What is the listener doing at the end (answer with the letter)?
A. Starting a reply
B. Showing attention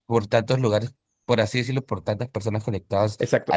A